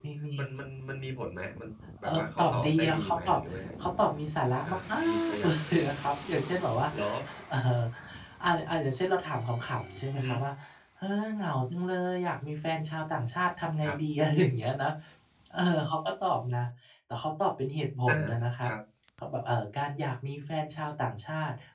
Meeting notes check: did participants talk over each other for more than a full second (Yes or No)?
Yes